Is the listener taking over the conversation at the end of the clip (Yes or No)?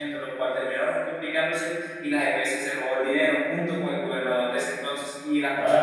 No